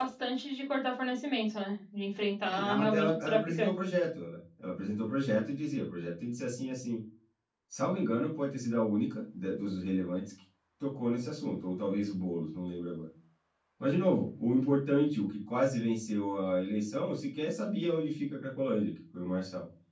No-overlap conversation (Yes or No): No